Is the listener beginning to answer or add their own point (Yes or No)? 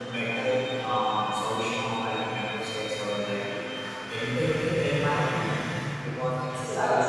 Yes